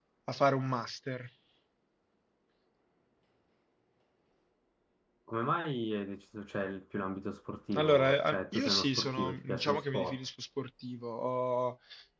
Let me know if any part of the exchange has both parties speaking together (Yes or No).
Yes